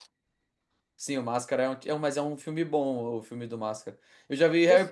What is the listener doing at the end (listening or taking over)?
listening